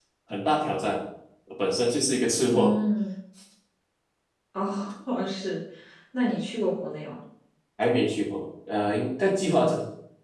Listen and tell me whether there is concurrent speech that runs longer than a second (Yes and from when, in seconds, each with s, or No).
No